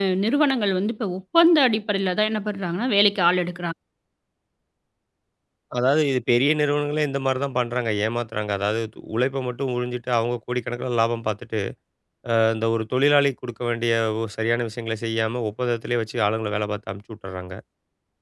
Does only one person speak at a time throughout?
Yes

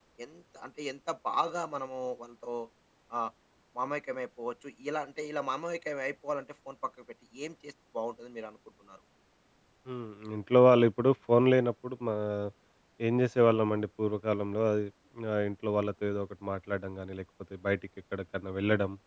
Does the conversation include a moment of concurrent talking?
No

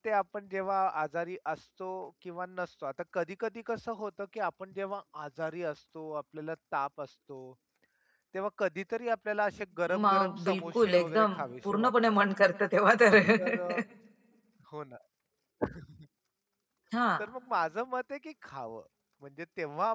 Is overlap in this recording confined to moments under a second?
No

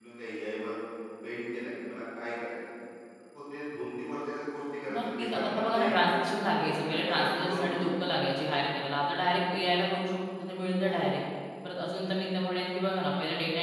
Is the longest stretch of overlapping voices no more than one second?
No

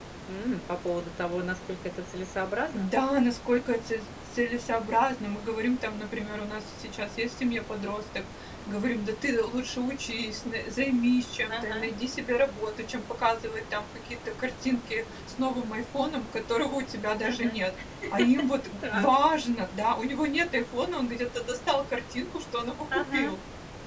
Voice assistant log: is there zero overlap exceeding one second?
Yes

